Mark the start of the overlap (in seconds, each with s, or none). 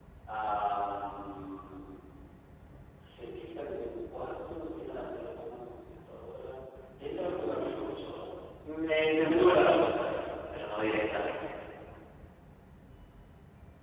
none